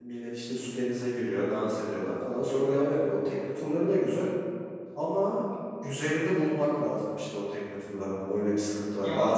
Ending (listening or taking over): listening